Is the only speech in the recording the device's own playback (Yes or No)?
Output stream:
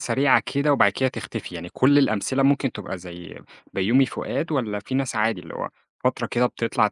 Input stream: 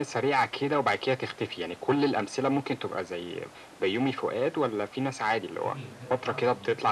No